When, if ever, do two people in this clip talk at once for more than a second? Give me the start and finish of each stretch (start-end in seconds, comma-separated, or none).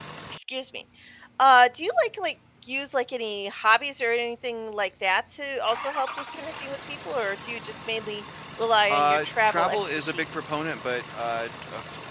8.9-10.4